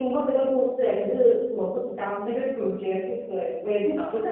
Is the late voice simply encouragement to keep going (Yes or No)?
Yes